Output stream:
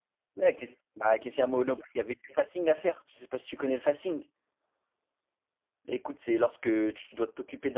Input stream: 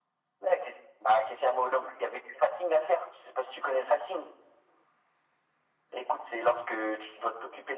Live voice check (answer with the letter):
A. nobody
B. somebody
A